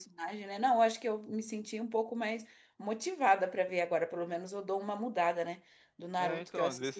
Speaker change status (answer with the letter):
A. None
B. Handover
B